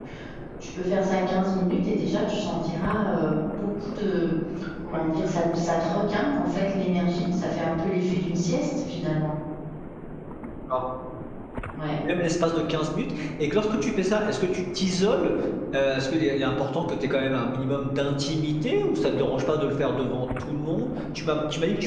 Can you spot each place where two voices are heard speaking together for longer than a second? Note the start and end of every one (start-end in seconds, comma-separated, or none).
none